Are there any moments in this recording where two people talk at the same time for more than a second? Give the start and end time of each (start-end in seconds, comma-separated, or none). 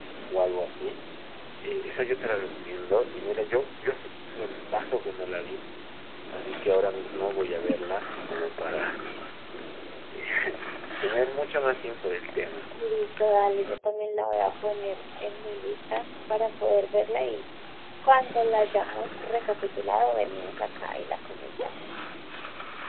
none